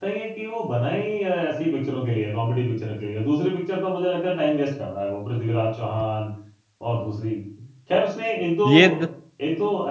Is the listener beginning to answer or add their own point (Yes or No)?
No